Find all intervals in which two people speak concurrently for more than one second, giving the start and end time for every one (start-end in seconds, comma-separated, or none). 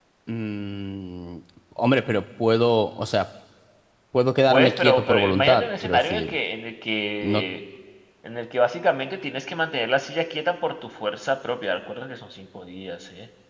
4.5-6.3